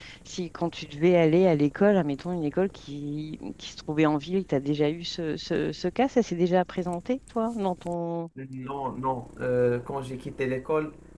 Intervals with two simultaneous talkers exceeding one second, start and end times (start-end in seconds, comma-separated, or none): none